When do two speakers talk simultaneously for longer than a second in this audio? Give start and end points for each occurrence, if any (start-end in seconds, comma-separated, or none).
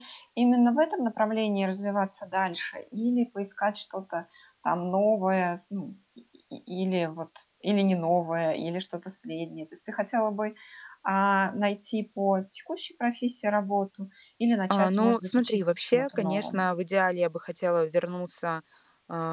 14.7-16.7